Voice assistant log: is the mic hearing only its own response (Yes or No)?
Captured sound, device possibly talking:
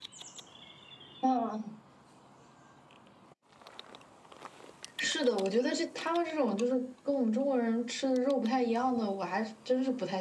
Yes